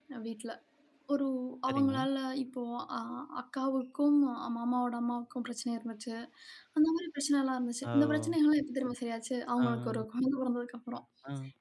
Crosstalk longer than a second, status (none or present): none